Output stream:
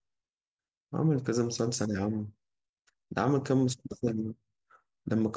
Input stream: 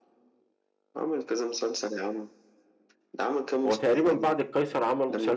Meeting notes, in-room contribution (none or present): present